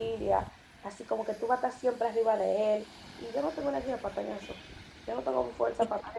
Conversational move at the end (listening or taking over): listening